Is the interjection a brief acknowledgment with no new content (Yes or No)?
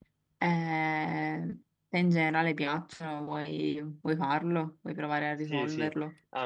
No